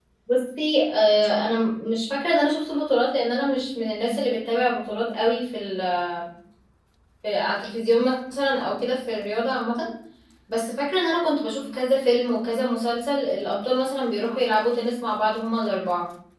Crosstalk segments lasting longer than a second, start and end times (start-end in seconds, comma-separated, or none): none